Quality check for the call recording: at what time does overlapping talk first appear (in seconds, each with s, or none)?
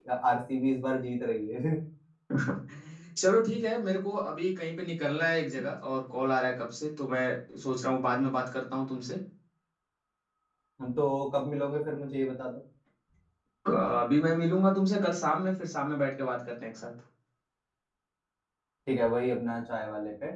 none